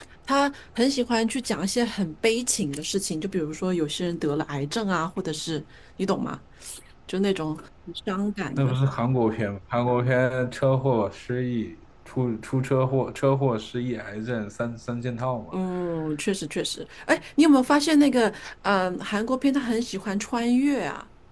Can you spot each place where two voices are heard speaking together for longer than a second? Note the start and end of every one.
none

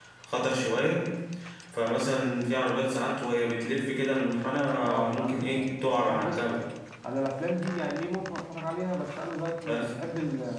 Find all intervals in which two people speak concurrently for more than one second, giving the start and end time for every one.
4.8-6.4

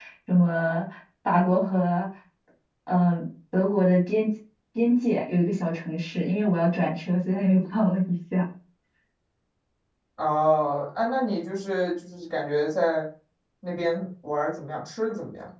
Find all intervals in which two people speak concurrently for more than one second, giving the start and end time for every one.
none

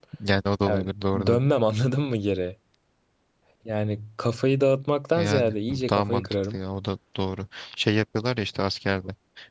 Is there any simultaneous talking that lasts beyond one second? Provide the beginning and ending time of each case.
5.2-6.6

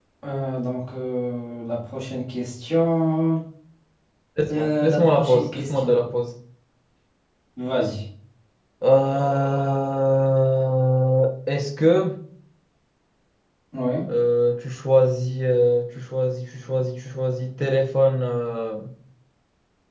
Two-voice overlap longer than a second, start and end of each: 4.5-6.0

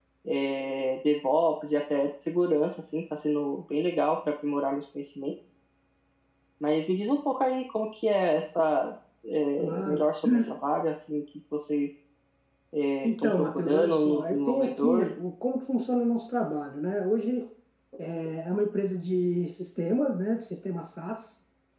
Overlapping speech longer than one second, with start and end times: 13.1-15.1

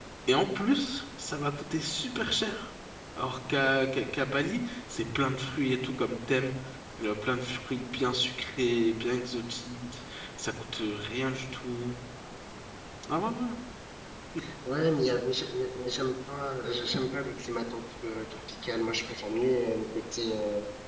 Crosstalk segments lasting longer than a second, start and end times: none

